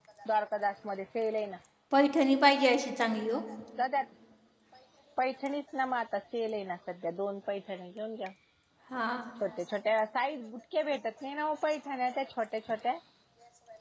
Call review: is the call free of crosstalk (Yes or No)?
Yes